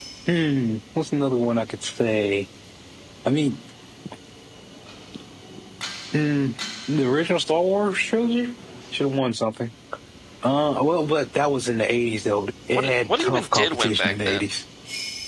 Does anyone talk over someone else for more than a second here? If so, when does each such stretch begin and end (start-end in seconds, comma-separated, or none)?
12.8-14.4